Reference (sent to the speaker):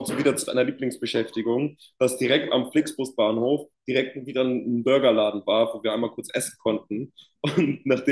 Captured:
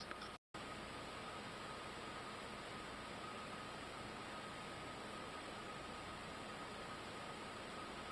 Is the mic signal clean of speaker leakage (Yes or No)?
Yes